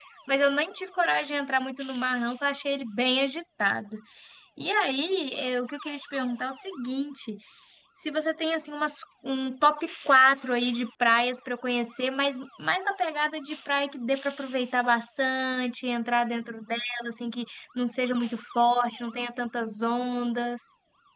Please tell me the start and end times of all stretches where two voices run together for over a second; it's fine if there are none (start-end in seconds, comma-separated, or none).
none